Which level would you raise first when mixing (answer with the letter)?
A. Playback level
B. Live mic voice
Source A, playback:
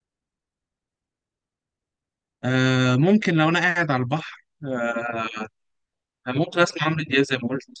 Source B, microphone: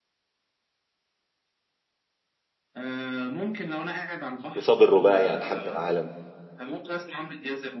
A